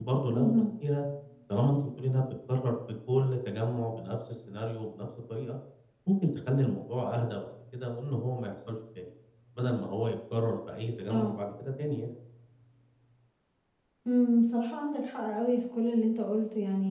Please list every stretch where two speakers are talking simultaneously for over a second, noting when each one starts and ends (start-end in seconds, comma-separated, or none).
none